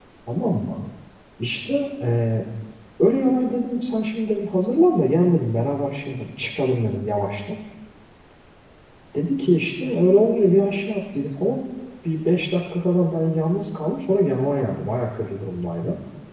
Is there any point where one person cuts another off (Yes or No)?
No